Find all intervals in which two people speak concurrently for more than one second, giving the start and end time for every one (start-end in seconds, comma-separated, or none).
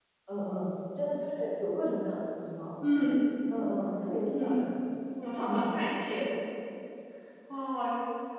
none